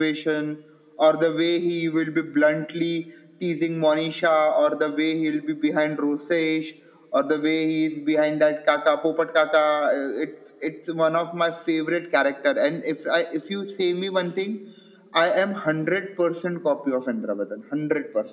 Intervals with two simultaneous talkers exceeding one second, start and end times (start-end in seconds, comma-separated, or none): none